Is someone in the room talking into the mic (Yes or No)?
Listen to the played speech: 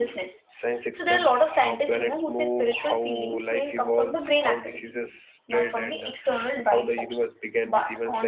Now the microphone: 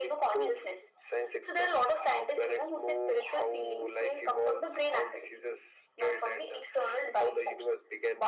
No